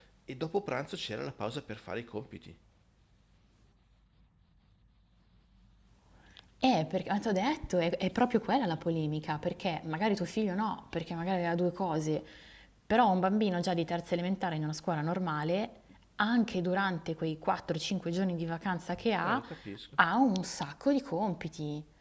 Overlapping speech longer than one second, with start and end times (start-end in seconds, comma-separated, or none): none